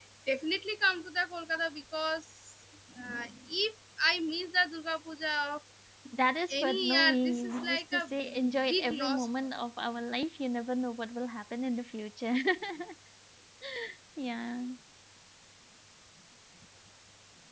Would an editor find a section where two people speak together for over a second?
Yes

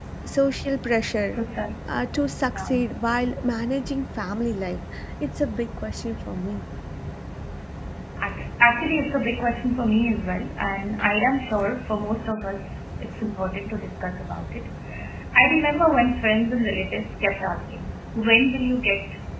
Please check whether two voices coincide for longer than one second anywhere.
No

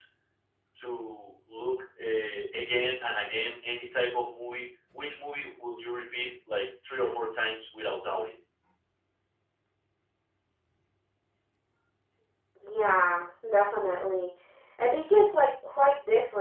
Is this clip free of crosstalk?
Yes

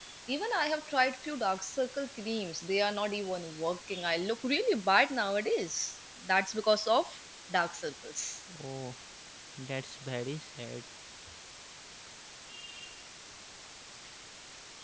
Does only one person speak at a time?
Yes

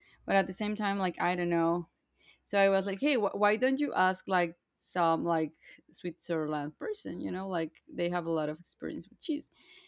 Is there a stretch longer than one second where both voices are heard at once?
No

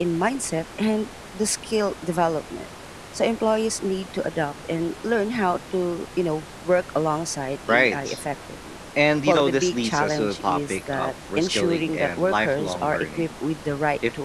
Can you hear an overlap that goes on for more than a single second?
Yes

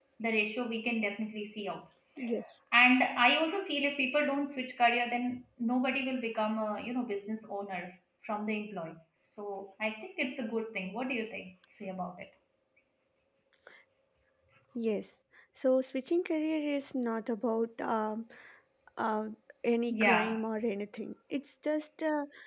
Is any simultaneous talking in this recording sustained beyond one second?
No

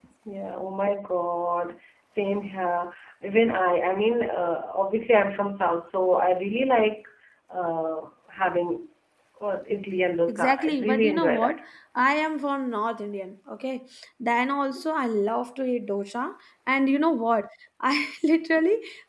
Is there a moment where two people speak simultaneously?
Yes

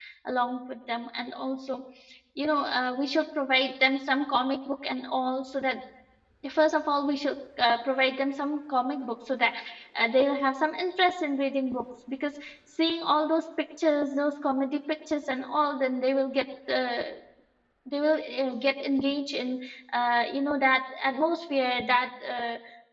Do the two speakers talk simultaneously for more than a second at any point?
No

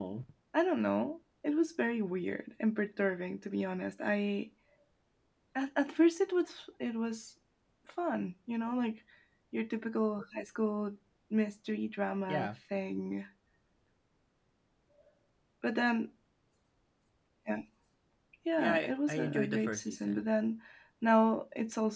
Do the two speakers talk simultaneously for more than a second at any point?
Yes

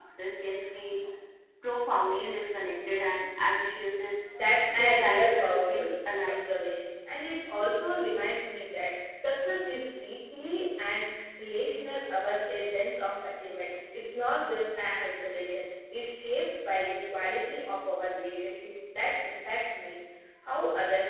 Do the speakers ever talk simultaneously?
Yes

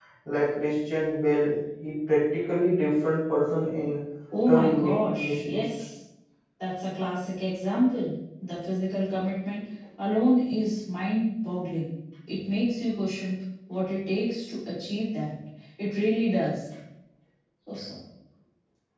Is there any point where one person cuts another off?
Yes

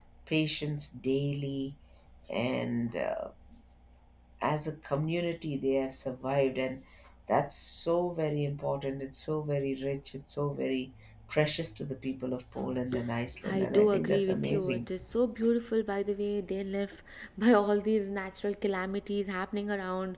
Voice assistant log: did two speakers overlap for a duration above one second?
Yes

